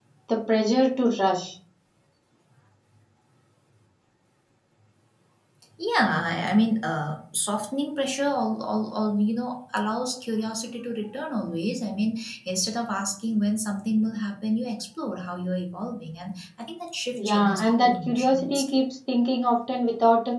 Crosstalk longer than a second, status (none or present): present